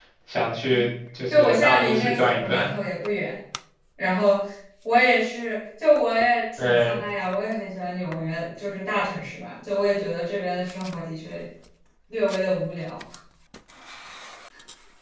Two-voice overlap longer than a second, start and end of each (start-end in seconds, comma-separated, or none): 1.3-2.7